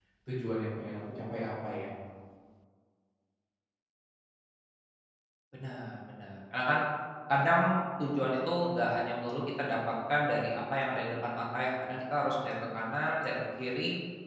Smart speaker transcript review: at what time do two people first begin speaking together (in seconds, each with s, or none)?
none